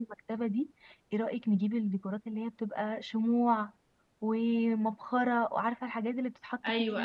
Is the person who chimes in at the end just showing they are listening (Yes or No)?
No